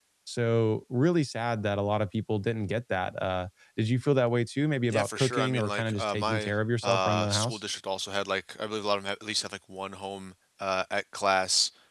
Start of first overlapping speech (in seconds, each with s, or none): 4.9 s